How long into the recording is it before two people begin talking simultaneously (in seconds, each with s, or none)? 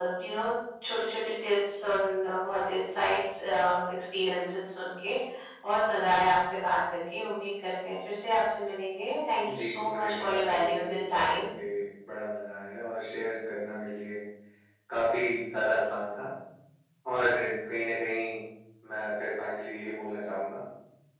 9.4 s